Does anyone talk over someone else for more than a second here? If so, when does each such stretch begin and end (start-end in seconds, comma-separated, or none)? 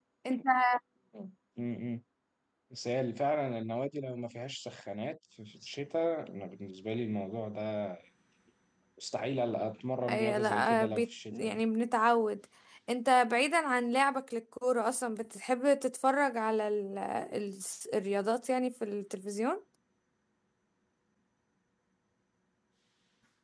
10.1-11.6